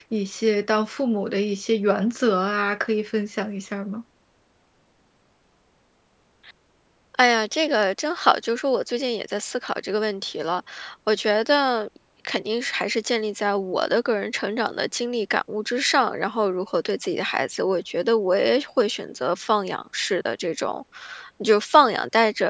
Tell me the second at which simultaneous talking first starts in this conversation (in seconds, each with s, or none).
none